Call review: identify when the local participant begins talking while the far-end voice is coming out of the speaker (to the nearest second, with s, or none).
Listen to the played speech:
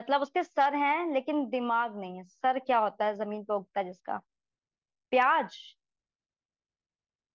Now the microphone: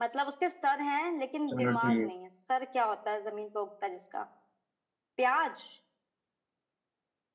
1 s